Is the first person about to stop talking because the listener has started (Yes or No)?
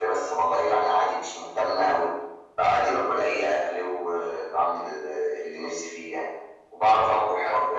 No